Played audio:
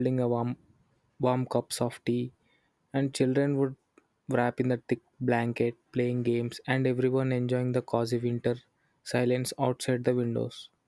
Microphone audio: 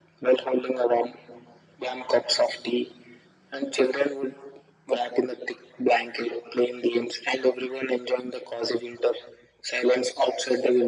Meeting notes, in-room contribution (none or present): none